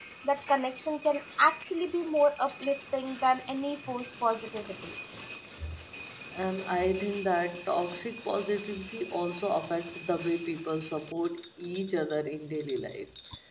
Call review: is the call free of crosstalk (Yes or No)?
Yes